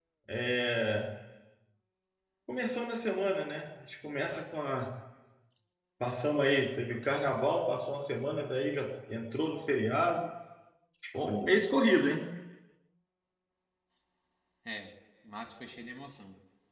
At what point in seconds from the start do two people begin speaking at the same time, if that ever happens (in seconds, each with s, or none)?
none